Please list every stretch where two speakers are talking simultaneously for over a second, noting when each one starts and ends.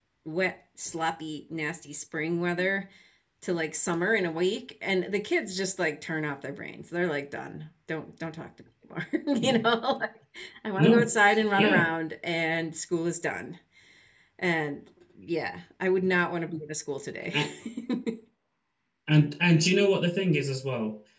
none

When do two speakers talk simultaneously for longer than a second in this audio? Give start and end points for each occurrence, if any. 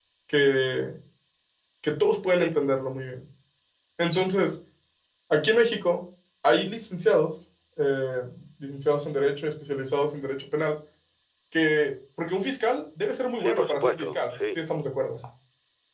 13.3-14.6

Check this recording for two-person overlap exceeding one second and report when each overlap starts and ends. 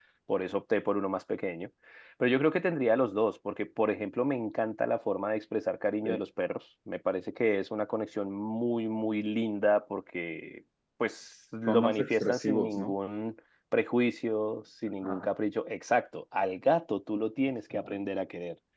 11.7-12.9

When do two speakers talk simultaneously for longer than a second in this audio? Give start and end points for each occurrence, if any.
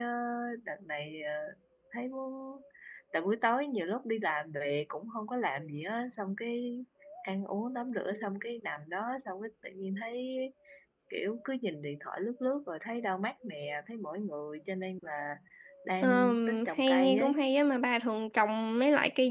16.0-17.4

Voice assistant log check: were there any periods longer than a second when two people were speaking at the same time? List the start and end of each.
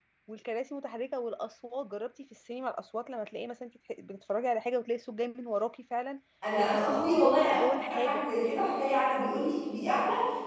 6.6-8.2

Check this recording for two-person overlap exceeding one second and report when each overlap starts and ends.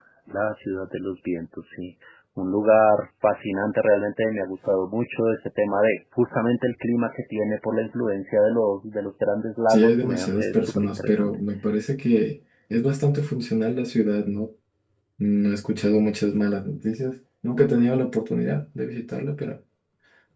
9.7-11.3

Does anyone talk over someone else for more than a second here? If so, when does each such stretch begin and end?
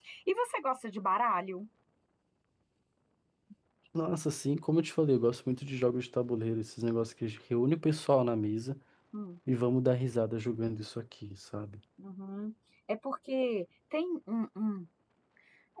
none

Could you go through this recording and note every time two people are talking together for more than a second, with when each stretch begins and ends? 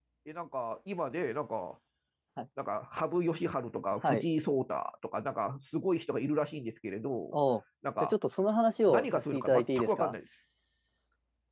8.9-10.1

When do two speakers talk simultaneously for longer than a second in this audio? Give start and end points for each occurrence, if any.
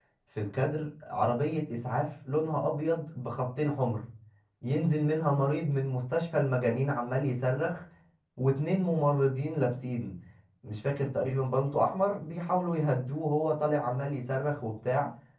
none

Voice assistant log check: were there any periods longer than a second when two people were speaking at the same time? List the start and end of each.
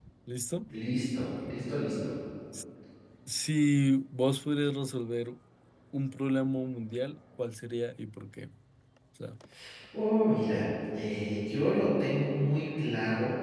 none

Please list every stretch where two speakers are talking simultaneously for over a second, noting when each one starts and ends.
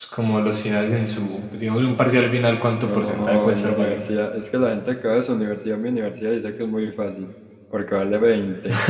2.8-4.0

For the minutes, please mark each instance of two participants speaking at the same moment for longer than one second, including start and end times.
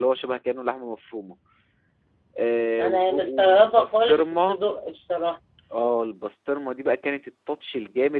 2.8-4.6

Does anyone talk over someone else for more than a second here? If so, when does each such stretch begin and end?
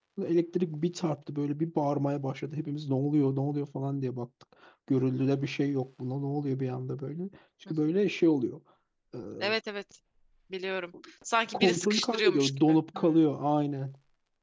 11.5-13.2

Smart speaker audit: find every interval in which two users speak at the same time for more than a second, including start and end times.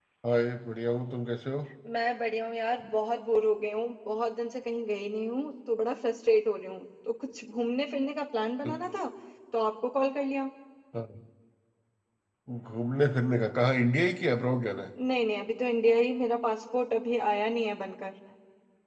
none

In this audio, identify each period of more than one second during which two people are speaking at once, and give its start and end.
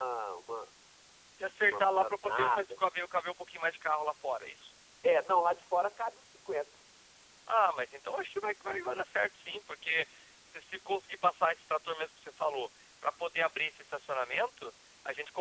1.6-2.8

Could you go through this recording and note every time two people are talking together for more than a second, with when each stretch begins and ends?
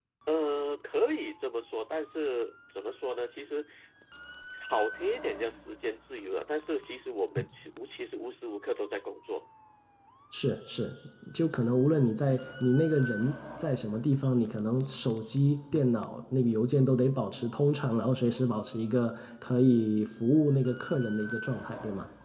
none

